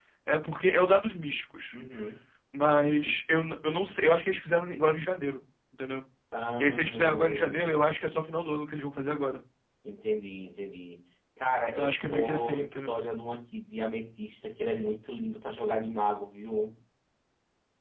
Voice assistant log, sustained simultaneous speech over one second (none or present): present